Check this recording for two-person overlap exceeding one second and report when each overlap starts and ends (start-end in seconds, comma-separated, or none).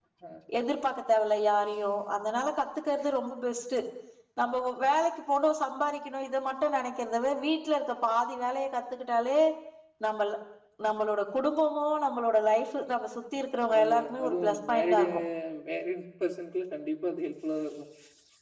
13.8-15.1